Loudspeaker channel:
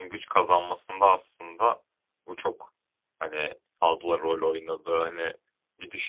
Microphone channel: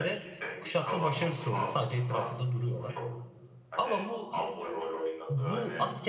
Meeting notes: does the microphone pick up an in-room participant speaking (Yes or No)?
Yes